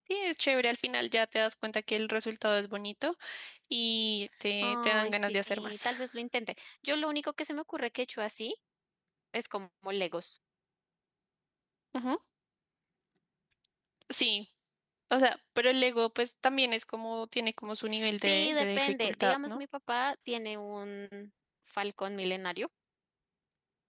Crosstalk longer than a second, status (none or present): present